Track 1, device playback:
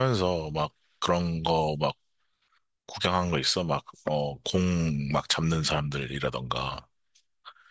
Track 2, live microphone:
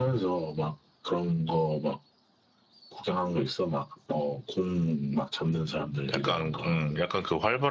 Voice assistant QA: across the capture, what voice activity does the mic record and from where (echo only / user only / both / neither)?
both